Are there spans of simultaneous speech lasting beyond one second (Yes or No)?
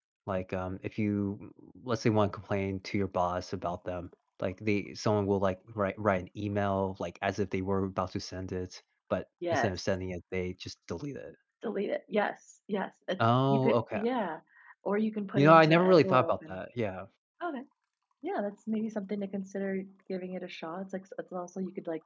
Yes